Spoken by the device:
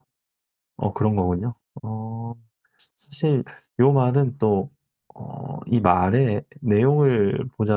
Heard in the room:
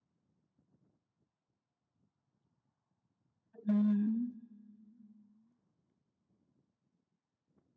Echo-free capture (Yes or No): Yes